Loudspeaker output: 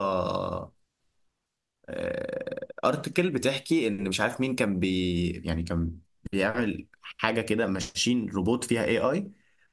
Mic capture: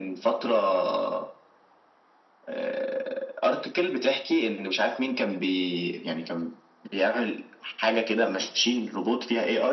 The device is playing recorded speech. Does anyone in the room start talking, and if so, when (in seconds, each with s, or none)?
none